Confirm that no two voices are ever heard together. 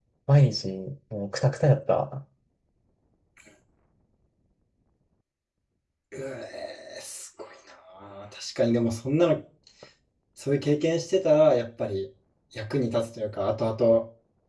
Yes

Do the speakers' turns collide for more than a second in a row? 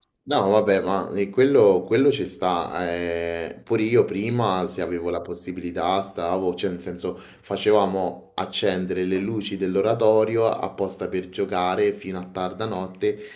No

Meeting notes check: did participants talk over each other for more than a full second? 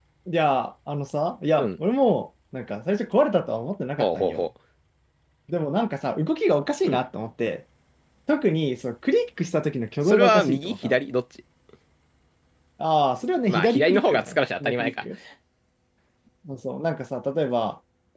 Yes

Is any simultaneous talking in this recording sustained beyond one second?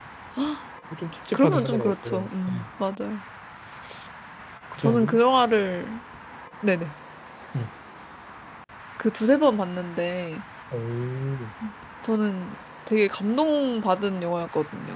Yes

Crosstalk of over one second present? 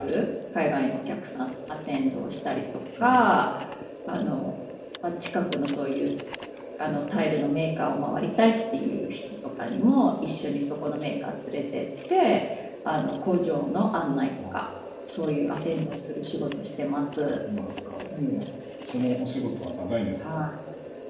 No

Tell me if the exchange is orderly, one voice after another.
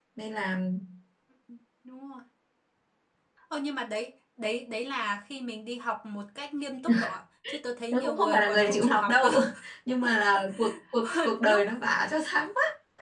No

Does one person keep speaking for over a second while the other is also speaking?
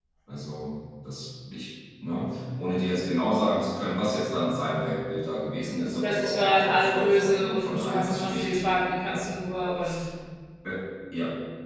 Yes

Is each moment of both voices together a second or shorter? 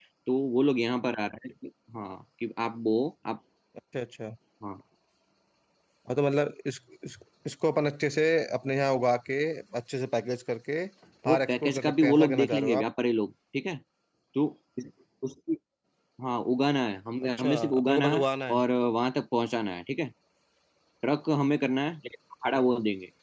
No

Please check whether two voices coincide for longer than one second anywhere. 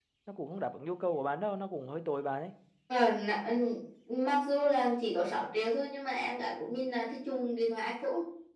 No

